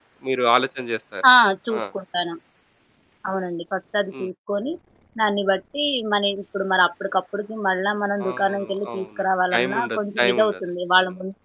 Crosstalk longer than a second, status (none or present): present